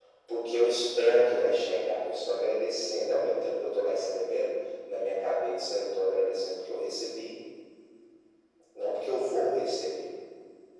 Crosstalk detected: No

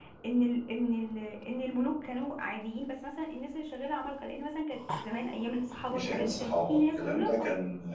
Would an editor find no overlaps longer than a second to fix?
No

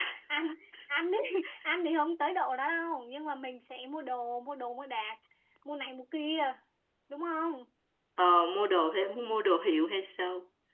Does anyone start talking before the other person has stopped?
No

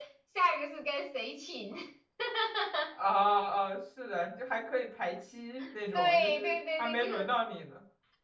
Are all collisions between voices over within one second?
No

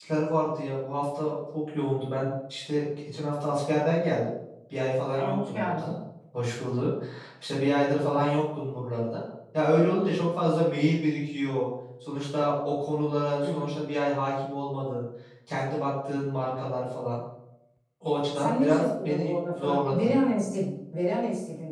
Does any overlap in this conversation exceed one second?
Yes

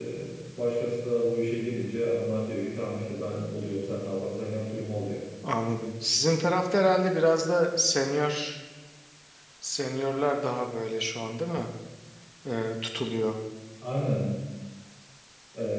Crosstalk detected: No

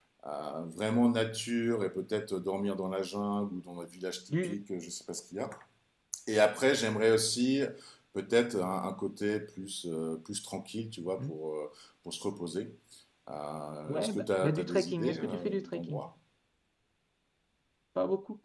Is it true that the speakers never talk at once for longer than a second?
No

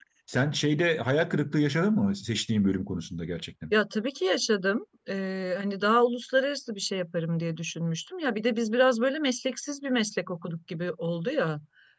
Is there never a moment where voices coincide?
Yes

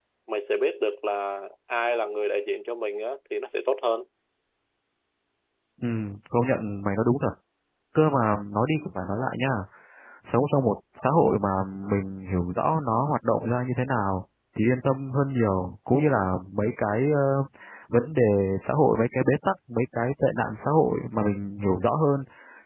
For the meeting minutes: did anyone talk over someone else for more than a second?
No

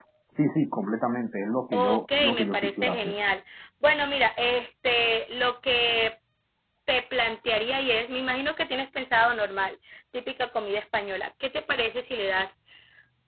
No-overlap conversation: No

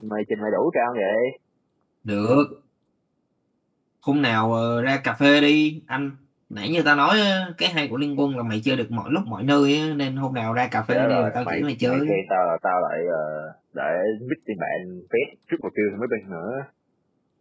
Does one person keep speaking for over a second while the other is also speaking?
Yes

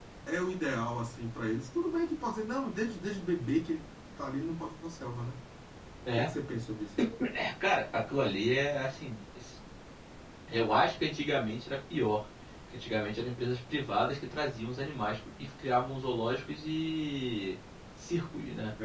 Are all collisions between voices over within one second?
Yes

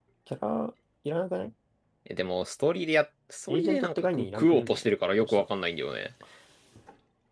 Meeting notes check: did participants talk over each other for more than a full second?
Yes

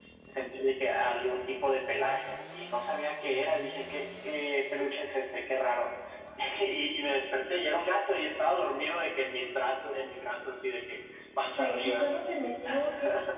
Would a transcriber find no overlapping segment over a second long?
Yes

